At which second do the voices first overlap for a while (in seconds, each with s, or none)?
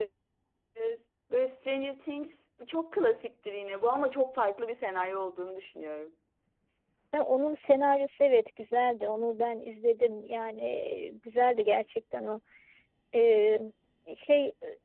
none